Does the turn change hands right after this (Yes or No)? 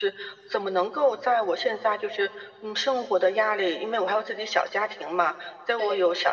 No